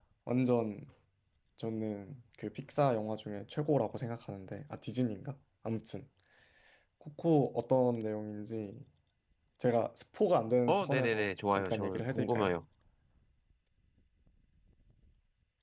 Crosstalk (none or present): present